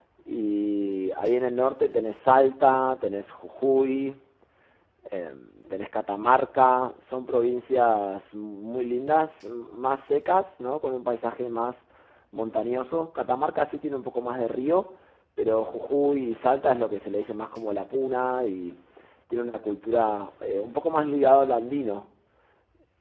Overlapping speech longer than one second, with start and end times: none

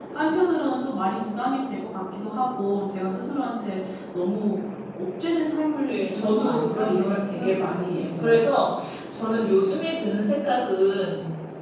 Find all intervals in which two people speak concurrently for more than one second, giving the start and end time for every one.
5.9-8.4

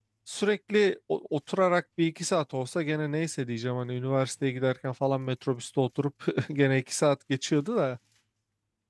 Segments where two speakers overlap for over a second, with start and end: none

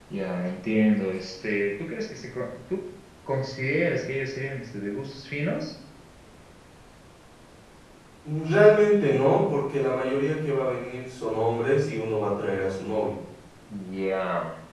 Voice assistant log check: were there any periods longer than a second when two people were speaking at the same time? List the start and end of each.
none

